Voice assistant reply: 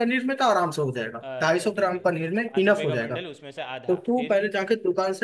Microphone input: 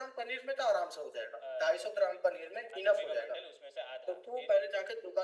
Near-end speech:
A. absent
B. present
A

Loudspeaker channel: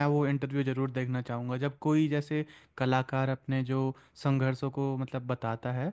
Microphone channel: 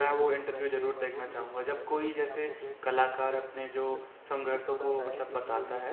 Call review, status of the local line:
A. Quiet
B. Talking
B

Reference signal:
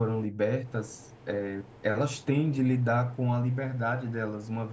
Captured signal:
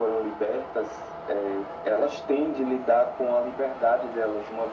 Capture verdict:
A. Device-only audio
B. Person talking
A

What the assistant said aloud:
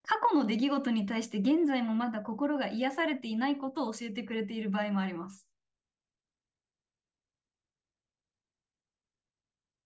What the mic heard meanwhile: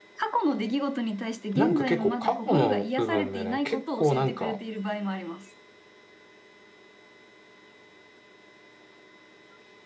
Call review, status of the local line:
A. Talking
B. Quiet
A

